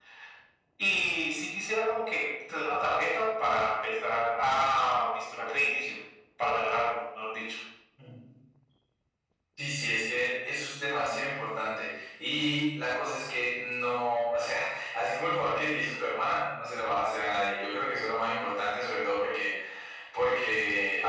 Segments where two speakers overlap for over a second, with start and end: none

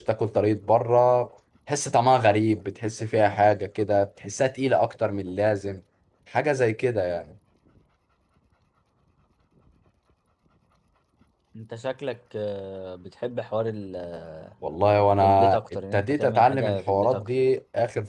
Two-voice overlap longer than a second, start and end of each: 15.2-17.3

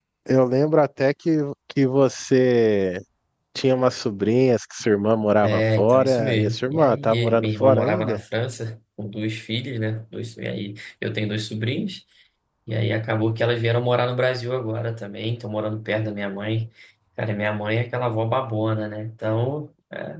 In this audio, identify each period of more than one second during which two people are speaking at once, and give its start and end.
5.4-8.2

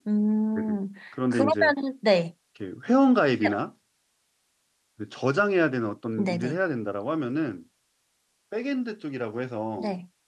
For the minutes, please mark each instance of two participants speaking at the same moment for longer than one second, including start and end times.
none

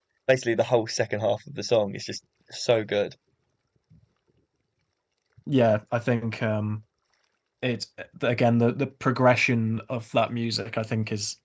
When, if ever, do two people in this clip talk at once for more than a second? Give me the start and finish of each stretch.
none

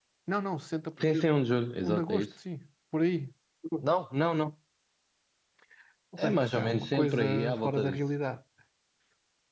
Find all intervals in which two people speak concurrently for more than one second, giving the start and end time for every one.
6.3-8.0

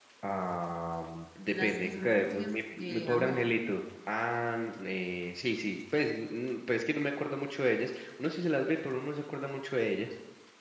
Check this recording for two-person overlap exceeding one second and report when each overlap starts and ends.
1.5-3.5

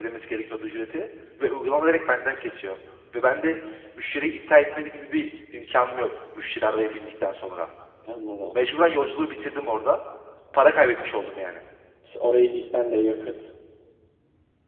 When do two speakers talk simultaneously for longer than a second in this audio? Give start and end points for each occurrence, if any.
none

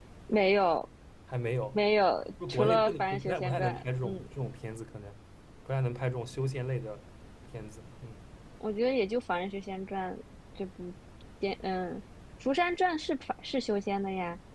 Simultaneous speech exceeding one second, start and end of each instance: 2.5-4.3

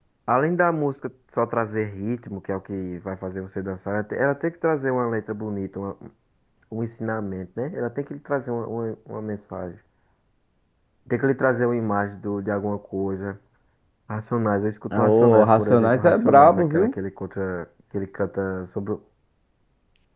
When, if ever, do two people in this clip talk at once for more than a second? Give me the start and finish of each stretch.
14.9-16.9

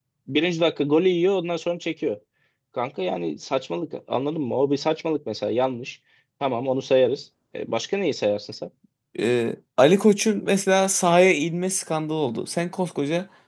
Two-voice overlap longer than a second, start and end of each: none

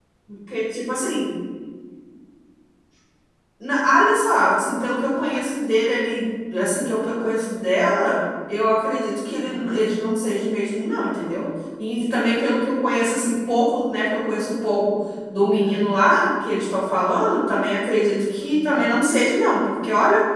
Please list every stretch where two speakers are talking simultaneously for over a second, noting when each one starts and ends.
none

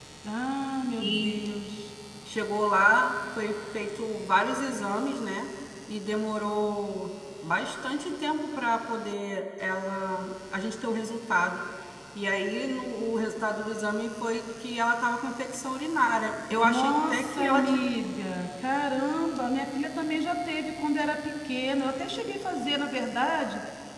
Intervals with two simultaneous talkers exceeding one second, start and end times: 16.6-17.8

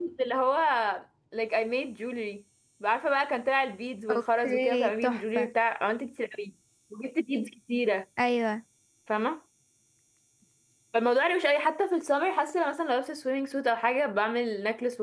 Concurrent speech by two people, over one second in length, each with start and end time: 4.1-5.5

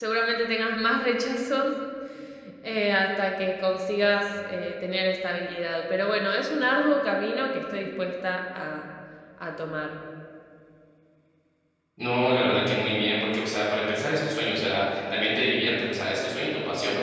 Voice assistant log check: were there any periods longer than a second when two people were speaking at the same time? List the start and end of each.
none

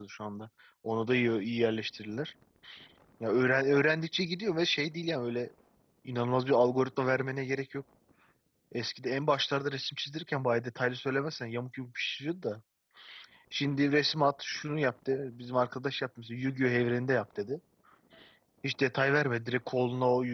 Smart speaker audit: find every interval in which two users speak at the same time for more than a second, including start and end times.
none

